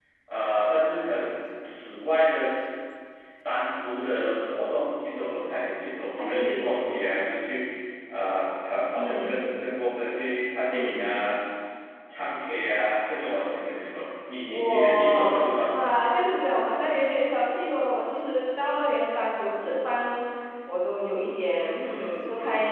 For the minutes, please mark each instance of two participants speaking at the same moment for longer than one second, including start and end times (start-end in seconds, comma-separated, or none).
14.5-15.8